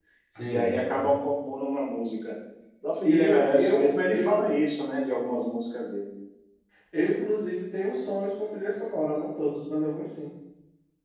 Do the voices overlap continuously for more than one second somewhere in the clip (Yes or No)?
Yes